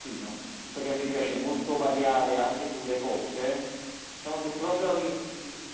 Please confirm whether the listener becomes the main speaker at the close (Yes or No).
No